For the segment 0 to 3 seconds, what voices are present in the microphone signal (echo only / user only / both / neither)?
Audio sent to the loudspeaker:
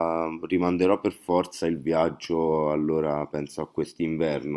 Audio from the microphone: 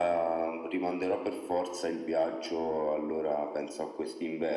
echo only